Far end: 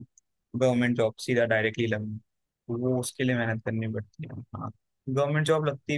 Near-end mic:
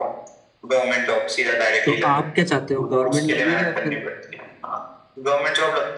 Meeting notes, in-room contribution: present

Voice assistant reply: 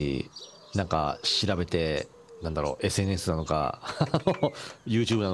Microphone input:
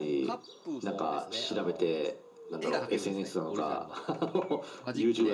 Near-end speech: present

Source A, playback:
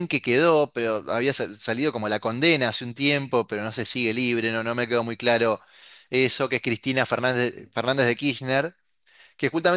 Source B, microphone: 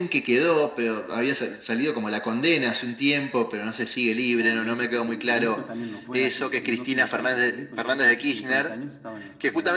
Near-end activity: present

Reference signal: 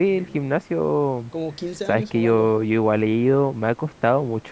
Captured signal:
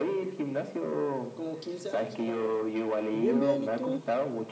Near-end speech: present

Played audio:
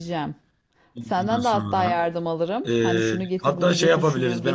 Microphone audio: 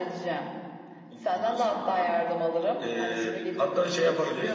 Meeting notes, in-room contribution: present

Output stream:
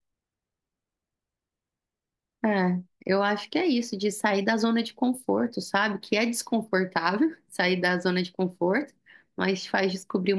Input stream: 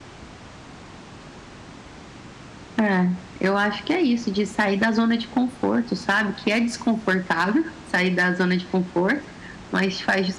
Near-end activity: none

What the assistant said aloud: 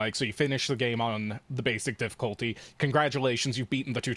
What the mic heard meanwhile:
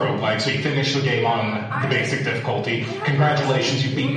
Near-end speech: present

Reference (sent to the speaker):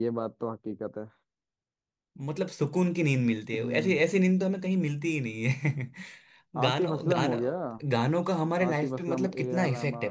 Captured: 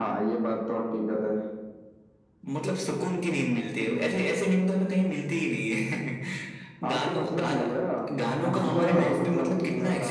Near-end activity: present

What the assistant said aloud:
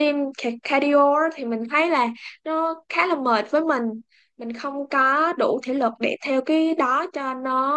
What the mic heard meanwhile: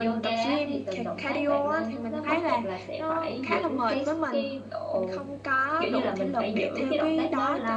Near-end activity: present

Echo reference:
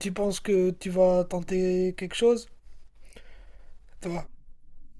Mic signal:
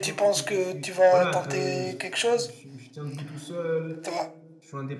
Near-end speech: present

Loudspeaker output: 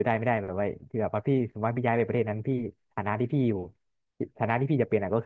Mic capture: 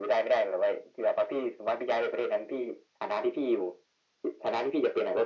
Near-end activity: none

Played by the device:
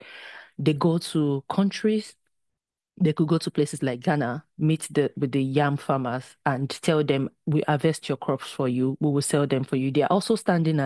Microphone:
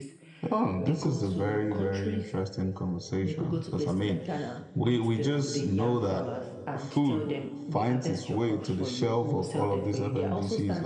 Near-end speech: present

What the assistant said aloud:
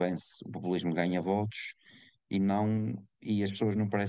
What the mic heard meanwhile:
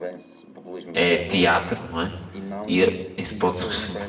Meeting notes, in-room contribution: present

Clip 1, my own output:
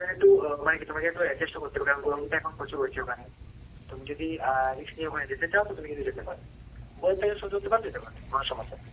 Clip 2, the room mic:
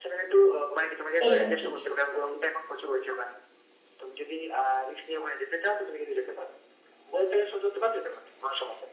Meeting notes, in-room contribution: present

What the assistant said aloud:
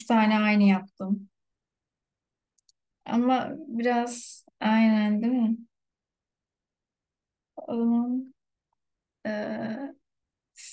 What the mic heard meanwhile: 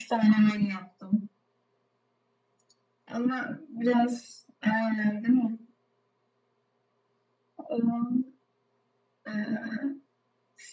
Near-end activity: none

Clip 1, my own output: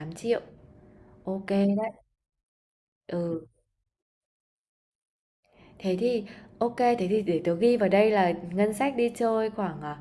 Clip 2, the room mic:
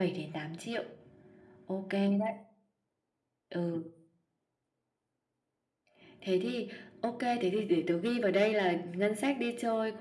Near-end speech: none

